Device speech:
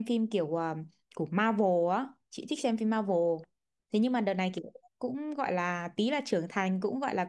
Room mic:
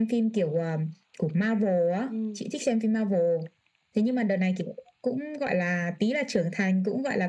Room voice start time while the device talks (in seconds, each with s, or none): 2.1 s